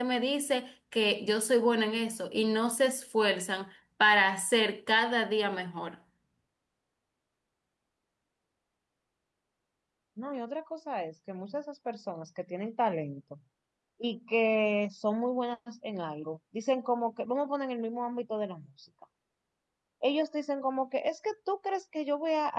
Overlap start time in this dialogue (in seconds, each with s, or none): none